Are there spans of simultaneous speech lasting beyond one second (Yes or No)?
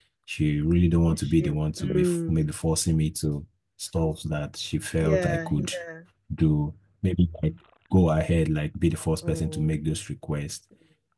Yes